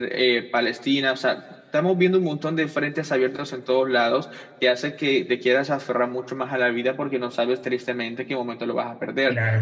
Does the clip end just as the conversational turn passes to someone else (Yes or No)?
Yes